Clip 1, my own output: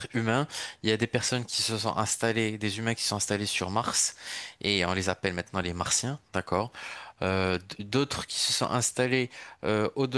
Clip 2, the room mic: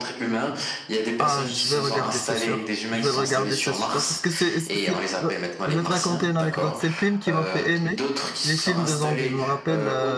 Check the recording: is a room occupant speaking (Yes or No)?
Yes